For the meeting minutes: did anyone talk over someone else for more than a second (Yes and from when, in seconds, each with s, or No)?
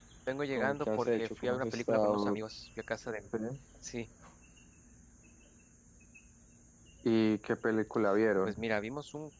Yes, from 0.6 s